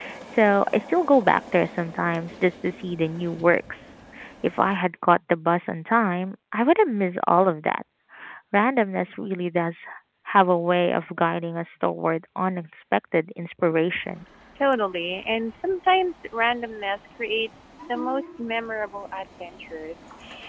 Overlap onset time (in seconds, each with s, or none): none